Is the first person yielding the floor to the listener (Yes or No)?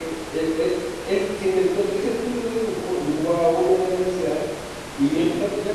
No